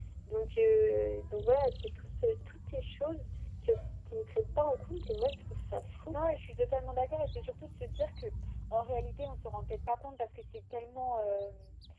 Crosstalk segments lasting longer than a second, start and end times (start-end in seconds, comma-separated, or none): none